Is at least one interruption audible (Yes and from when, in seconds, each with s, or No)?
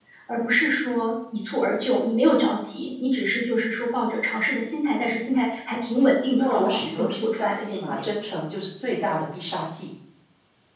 Yes, from 6.3 s